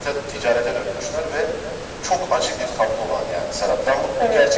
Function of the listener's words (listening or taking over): listening